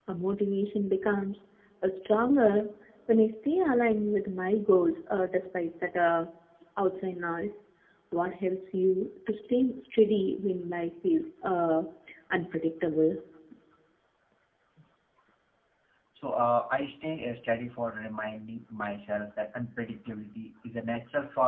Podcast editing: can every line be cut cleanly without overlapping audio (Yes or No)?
Yes